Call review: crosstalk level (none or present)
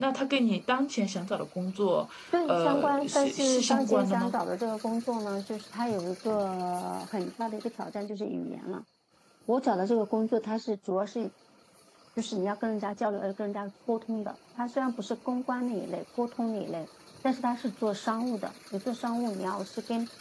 present